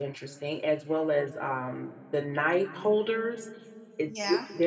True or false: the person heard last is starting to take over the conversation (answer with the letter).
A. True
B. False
B